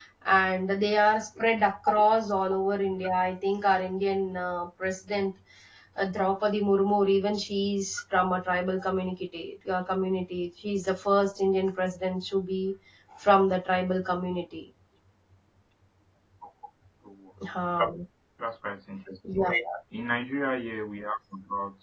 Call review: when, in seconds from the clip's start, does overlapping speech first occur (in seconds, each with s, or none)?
none